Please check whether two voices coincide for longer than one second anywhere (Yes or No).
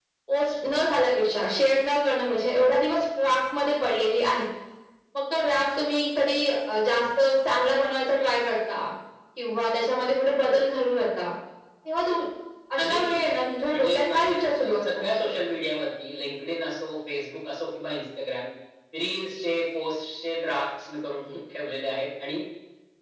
Yes